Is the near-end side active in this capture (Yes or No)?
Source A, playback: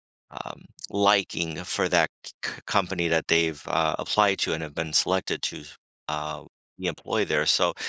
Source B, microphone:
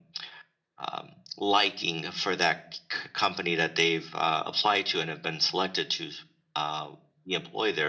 No